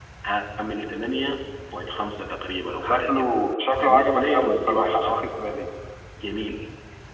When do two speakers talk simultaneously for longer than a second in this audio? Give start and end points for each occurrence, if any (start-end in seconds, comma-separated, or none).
3.8-5.2